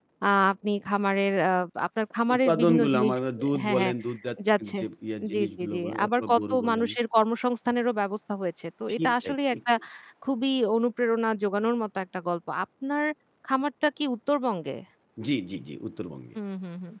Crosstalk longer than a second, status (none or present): present